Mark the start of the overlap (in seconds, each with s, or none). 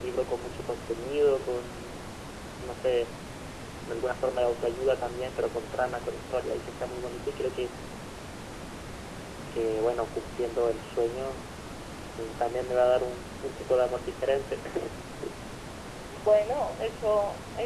none